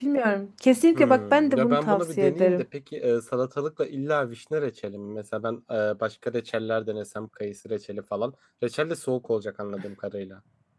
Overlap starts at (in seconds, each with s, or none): 0.9 s